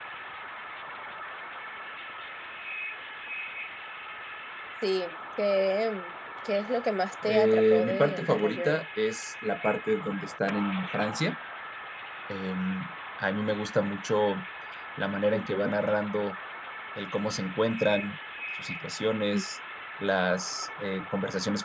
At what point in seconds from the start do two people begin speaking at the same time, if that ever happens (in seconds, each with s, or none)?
7.2 s